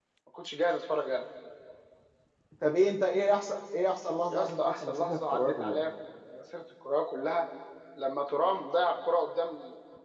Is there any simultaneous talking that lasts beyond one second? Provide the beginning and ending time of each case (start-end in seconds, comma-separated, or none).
4.3-5.8